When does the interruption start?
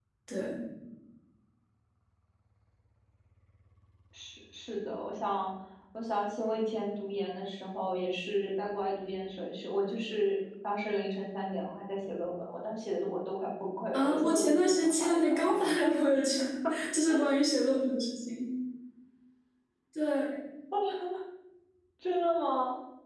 13.9 s

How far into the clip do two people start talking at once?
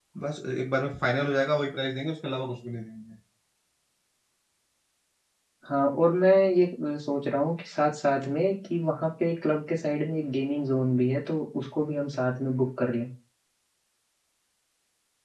none

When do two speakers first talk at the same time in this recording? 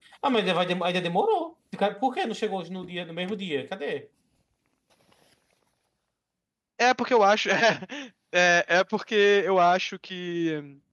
none

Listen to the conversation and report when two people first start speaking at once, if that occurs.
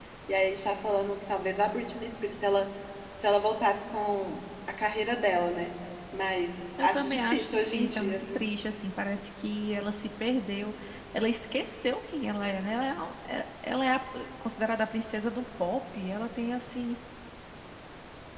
6.8 s

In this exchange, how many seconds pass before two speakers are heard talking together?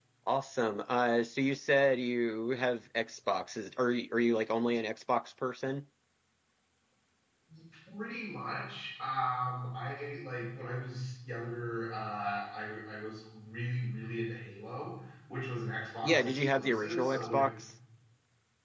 16.0 s

